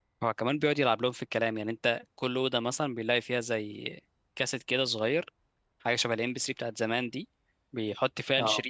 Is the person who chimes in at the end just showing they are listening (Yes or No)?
Yes